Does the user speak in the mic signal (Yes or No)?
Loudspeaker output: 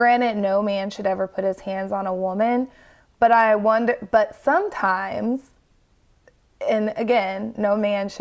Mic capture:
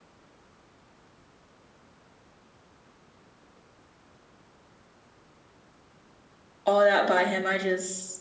Yes